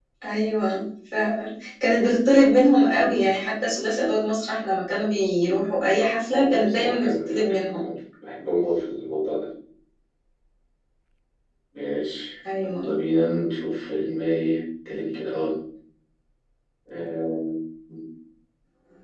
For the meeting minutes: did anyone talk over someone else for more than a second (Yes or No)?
Yes